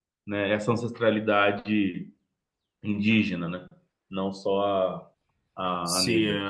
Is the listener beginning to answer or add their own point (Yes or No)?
Yes